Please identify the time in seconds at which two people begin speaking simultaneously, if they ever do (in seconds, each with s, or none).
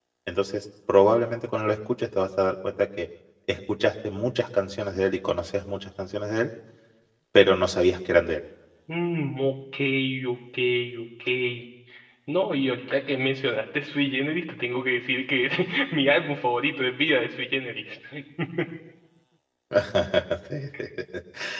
none